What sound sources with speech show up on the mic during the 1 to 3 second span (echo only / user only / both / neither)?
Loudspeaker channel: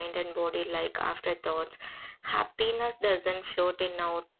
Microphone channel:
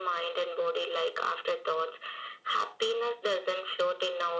echo only